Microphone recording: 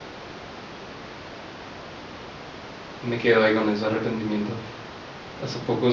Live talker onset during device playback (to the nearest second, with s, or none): 3 s